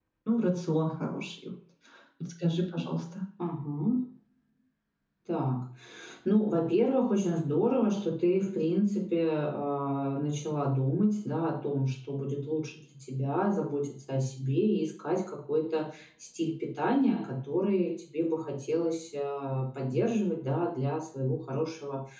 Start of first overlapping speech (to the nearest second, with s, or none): none